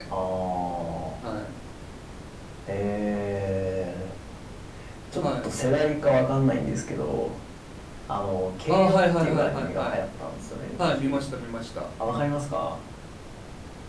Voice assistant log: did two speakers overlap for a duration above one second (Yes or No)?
Yes